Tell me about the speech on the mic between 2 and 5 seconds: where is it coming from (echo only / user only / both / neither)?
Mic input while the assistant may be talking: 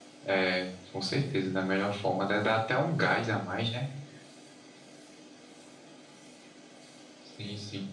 echo only